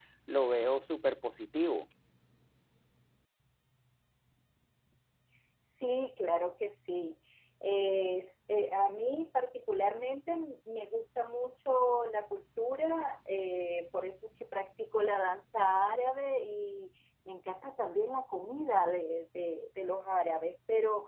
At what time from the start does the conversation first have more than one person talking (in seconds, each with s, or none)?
none